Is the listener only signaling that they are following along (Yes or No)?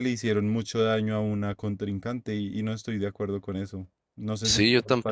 No